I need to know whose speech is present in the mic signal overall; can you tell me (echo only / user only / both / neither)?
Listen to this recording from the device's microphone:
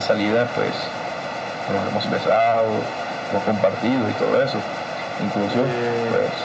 both